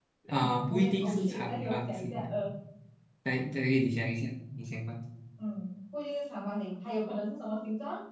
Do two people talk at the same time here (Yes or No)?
Yes